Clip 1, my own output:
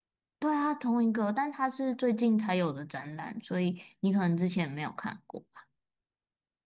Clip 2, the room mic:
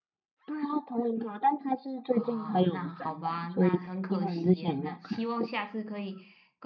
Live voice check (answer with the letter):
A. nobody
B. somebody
B